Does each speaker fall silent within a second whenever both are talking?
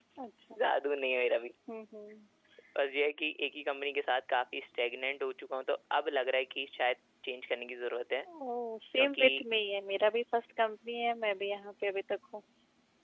Yes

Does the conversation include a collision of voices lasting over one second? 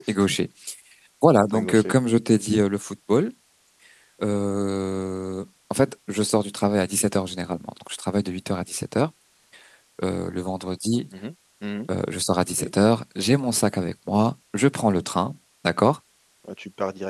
No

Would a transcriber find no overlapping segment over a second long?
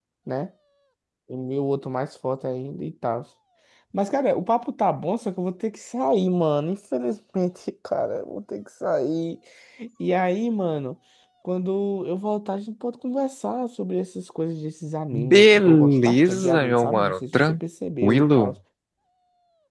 No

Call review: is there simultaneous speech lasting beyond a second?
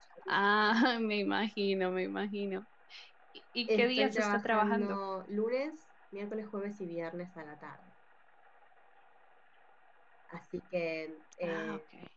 Yes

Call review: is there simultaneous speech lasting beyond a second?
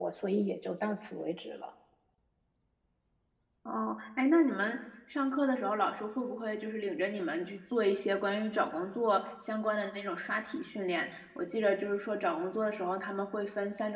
No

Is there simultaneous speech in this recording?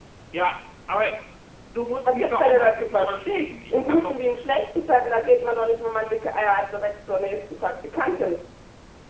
Yes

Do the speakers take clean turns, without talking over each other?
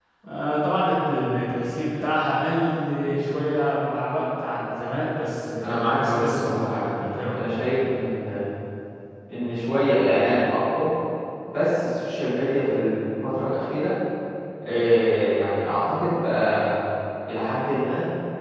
No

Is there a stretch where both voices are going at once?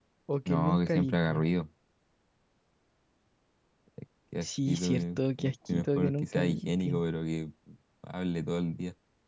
Yes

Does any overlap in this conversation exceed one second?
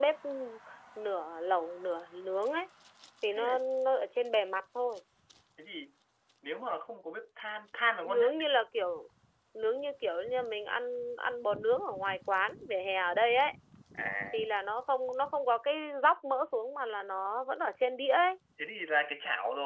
No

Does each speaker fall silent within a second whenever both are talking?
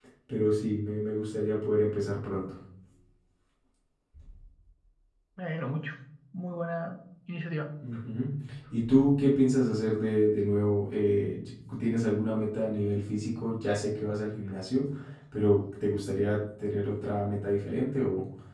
Yes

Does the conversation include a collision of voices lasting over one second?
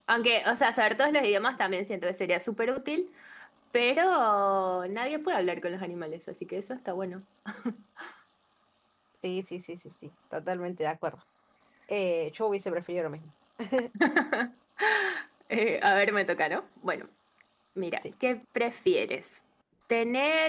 No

